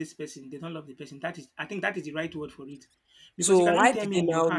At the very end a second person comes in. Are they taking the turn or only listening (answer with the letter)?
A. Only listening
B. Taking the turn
B